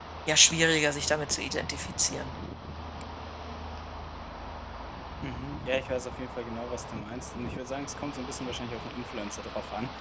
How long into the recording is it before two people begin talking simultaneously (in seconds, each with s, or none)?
none